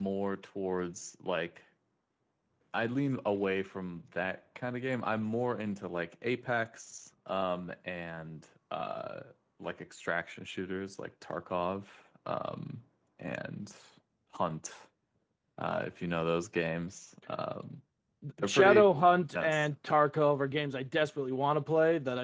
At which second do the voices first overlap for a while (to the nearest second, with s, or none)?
18 s